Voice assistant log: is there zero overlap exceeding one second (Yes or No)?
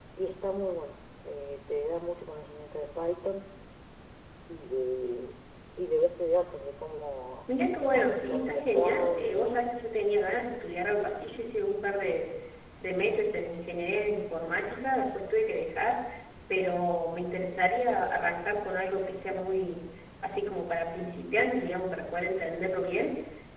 No